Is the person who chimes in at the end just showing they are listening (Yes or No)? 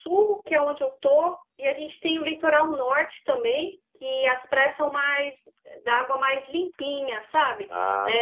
Yes